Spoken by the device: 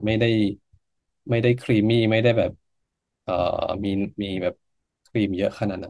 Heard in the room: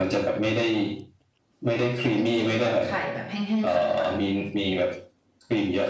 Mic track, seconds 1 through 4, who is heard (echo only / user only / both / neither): both